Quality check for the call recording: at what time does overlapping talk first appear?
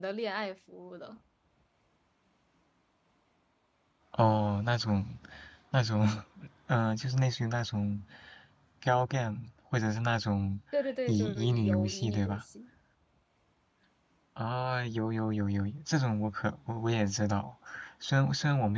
11.1 s

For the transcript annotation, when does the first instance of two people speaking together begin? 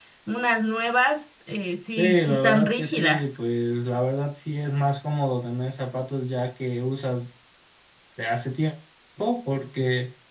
2.0 s

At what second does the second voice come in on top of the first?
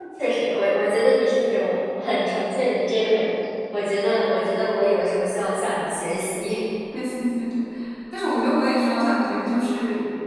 none

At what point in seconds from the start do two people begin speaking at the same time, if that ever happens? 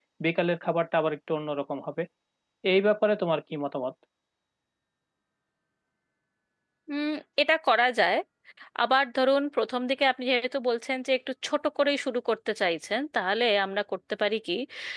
none

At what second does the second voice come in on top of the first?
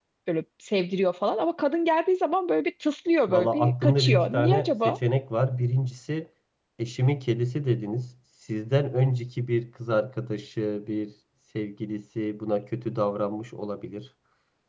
3.3 s

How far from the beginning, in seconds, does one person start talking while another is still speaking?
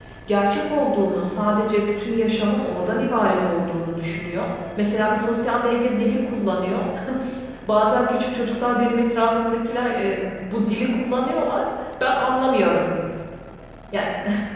none

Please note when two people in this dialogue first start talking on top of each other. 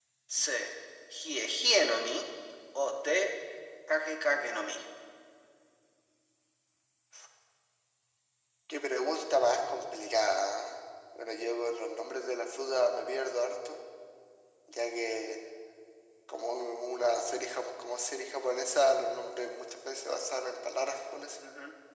none

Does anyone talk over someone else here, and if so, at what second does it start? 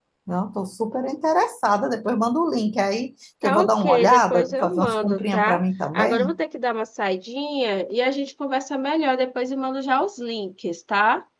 3.4 s

